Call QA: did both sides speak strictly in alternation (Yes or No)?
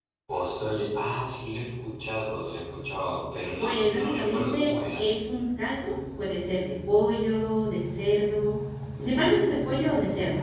No